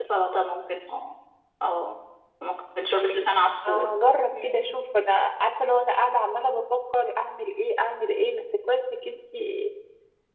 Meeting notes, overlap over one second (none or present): none